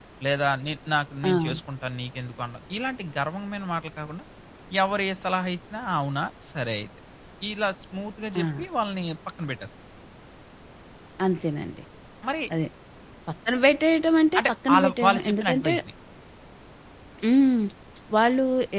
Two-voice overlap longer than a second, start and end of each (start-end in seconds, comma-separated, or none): 14.4-15.7